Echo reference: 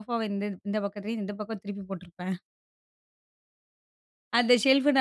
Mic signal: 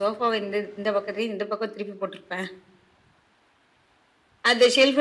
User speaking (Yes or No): No